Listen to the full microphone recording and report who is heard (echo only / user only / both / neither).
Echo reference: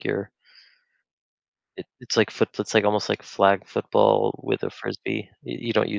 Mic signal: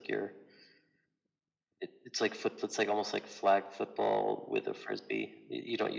echo only